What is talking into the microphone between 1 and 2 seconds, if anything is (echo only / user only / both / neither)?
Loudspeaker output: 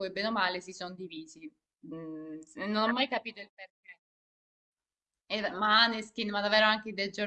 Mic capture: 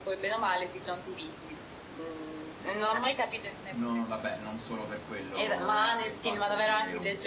echo only